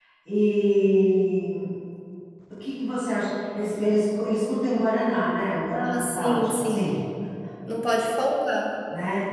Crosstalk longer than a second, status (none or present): present